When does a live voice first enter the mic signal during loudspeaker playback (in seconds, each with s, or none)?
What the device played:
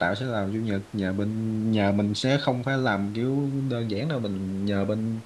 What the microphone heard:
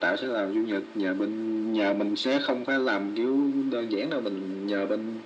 none